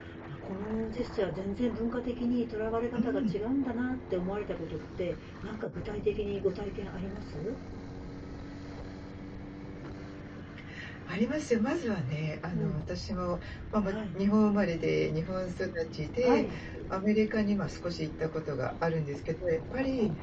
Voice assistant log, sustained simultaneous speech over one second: none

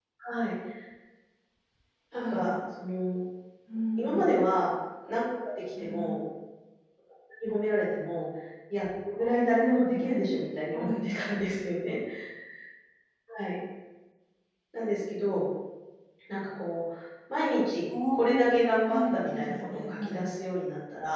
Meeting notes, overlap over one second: present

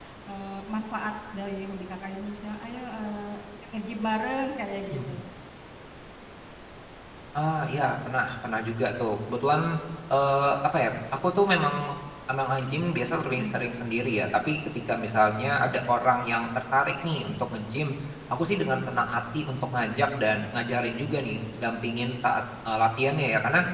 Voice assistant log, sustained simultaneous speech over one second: none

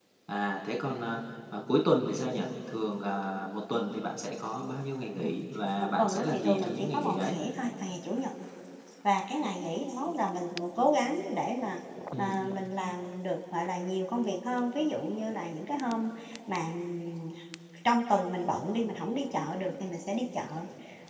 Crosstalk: present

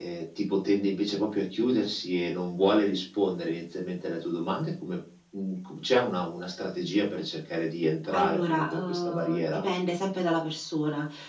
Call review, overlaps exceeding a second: present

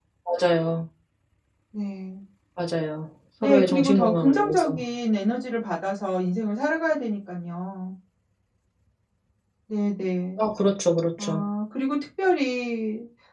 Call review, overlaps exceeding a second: present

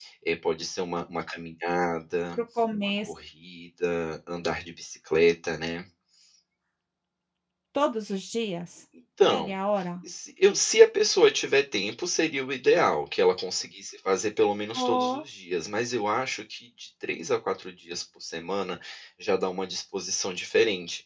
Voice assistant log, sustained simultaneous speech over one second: none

